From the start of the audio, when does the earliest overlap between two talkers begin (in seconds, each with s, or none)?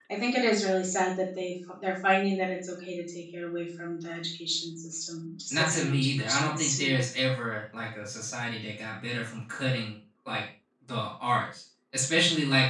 5.5 s